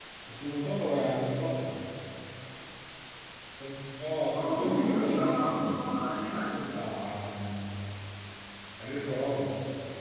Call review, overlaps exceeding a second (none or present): present